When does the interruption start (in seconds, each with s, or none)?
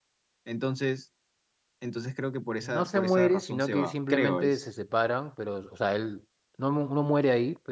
2.6 s